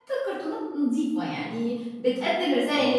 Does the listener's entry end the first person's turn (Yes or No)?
No